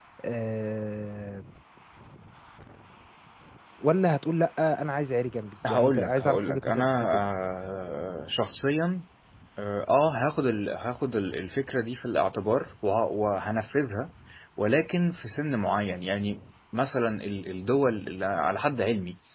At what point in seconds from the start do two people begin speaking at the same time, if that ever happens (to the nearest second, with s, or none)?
6 s